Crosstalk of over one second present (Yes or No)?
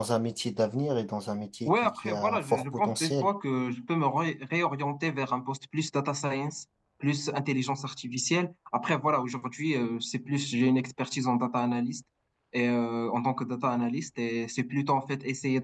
Yes